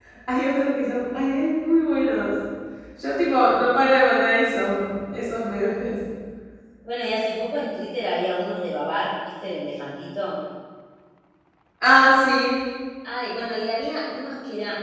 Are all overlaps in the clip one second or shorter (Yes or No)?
Yes